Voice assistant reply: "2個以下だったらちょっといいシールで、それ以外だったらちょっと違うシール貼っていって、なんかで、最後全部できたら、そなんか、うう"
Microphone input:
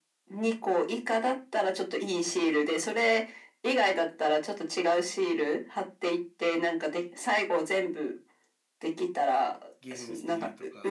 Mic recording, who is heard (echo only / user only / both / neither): both